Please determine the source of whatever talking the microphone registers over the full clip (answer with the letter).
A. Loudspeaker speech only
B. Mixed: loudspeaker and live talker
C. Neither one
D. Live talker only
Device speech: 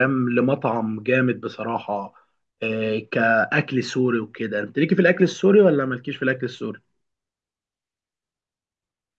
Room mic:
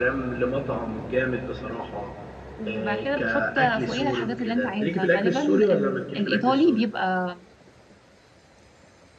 B